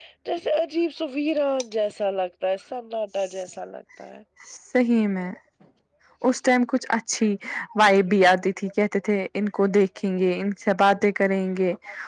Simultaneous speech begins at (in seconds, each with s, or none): none